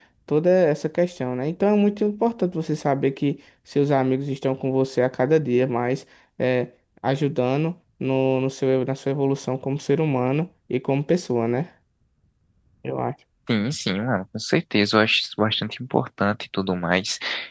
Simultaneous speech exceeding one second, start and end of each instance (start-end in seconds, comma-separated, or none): none